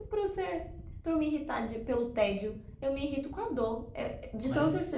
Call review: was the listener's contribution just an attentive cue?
Yes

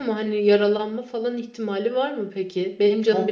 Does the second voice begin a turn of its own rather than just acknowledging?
Yes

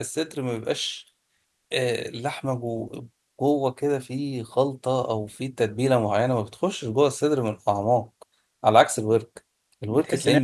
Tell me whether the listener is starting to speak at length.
Yes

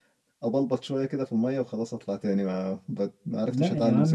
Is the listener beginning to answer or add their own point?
Yes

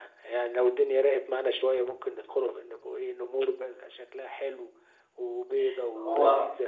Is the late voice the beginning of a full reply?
Yes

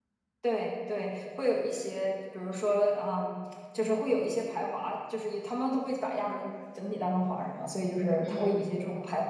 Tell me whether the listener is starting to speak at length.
No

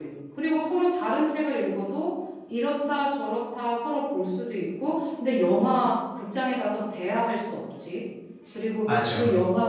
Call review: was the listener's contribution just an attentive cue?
Yes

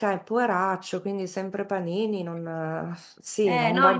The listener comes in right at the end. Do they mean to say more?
Yes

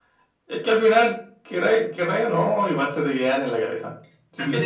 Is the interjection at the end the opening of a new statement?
Yes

